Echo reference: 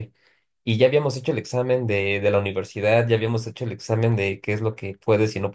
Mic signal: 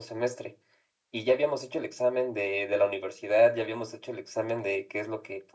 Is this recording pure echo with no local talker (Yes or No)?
Yes